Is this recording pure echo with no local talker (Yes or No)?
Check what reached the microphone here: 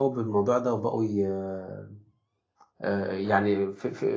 No